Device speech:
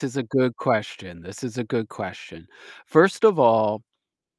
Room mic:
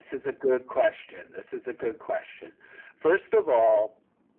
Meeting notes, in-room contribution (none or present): none